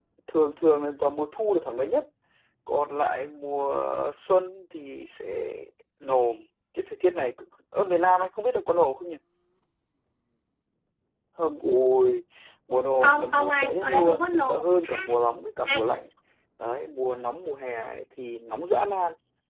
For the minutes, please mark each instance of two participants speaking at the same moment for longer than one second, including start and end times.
13.0-14.6

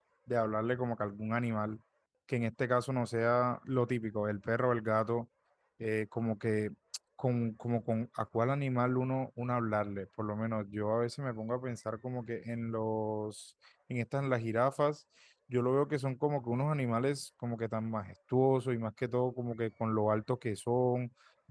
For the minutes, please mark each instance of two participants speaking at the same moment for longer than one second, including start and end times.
none

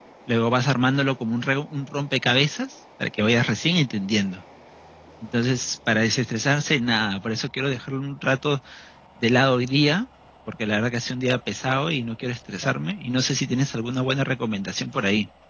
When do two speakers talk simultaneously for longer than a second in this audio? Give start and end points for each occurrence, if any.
none

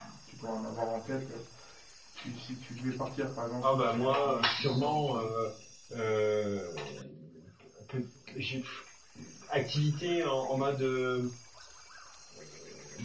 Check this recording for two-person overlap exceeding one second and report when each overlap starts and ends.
3.6-5.3

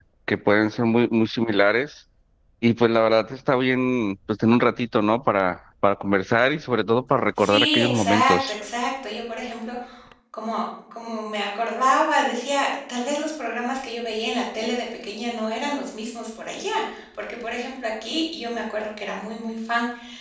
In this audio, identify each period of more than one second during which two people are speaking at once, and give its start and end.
7.4-8.6

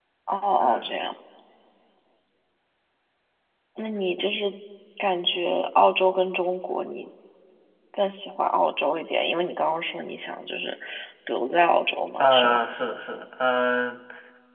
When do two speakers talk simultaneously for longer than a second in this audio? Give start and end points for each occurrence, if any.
none

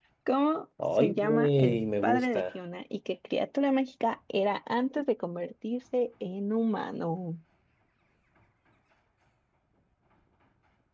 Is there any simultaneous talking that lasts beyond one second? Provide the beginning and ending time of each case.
1.0-2.4

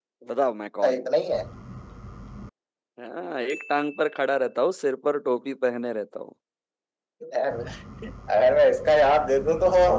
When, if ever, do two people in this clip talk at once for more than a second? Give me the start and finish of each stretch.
none

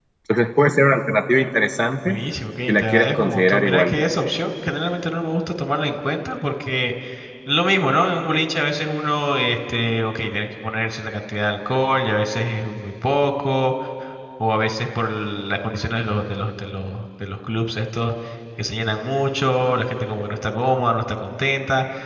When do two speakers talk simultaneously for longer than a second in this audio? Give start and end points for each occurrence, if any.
2.7-4.0

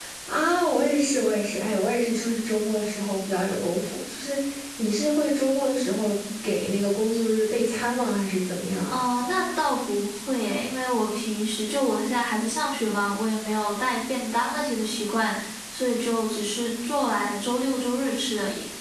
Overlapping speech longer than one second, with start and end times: none

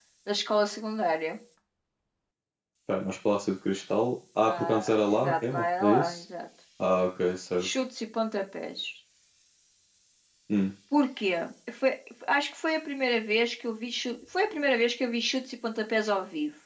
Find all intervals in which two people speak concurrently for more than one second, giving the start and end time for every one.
4.4-6.2

